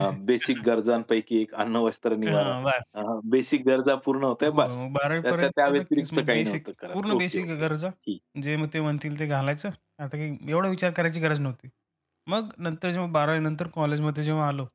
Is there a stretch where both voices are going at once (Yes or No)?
Yes